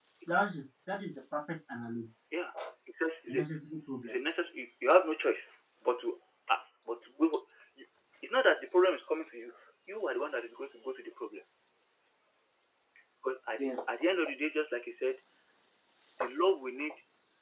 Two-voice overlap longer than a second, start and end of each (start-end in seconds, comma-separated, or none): none